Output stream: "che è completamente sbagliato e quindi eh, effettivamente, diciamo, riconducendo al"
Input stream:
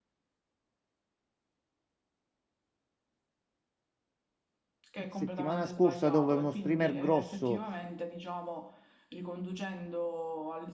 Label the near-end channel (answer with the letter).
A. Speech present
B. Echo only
A